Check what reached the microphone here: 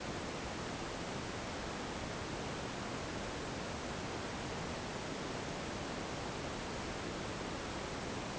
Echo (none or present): none